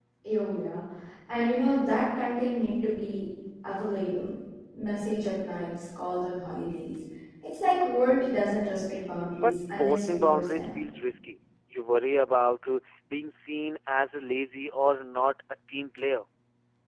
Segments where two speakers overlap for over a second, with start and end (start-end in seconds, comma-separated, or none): 9.4-10.7